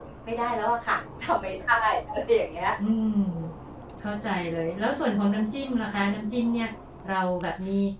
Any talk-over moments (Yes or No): No